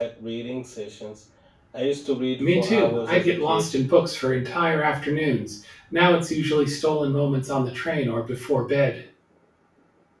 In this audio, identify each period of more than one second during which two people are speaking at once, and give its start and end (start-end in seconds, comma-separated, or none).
2.4-3.7